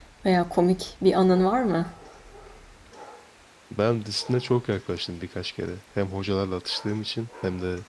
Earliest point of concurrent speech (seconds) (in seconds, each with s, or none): none